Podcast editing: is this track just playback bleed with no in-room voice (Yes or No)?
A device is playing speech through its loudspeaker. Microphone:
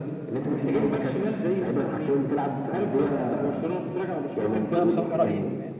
No